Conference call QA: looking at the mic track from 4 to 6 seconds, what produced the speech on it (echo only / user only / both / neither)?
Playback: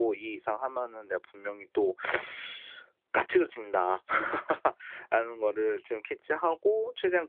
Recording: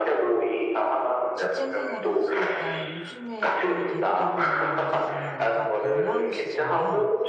both